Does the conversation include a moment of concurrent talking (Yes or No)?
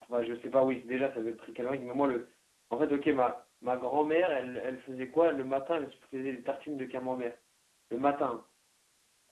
No